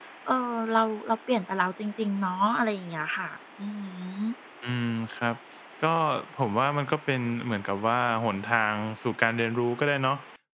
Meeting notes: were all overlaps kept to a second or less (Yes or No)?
Yes